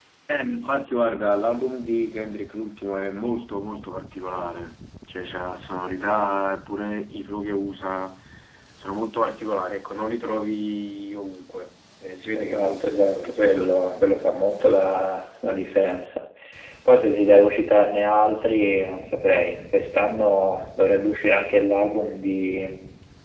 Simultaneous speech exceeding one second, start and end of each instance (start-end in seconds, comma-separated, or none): 12.3-14.3